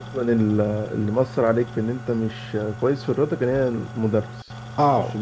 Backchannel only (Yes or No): No